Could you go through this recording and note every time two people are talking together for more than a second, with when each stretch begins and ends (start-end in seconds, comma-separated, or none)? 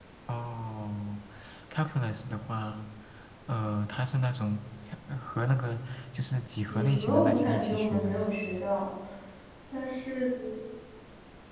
6.6-8.3